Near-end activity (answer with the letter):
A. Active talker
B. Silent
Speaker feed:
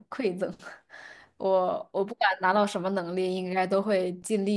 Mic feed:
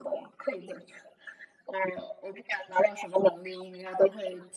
B